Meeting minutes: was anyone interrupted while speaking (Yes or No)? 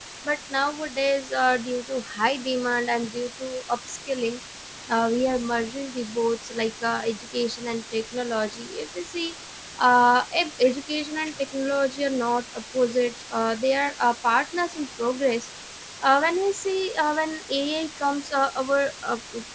No